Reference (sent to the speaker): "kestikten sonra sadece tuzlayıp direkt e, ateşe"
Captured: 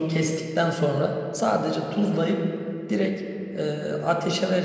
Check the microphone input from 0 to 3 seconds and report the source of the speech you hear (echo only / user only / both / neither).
echo only